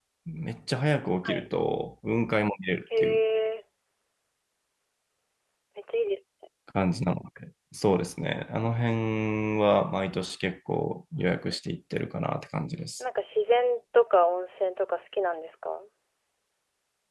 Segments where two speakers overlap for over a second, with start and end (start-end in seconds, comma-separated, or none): none